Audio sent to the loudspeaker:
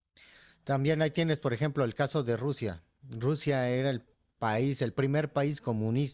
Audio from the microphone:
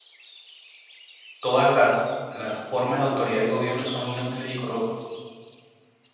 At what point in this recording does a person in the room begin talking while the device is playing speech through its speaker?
1.4 s

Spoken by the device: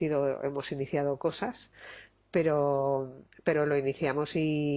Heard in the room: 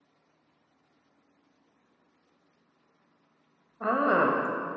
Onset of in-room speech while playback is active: 3.8 s

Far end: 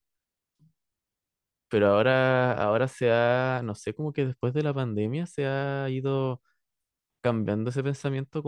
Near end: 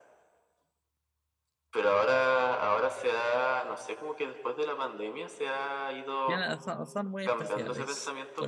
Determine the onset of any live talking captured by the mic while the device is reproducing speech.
6.2 s

